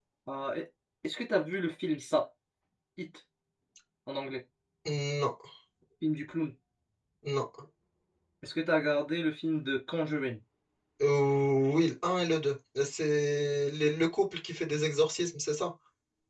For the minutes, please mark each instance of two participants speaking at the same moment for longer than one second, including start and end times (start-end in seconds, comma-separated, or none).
none